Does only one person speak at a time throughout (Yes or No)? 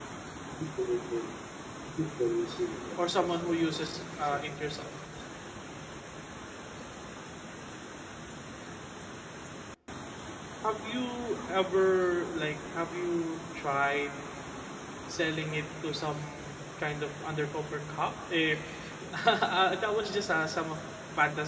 No